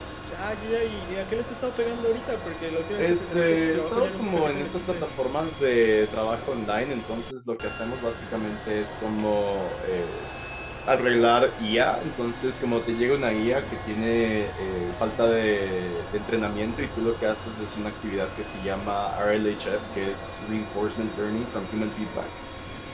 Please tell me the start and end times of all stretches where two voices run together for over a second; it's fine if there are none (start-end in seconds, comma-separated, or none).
3.0-5.1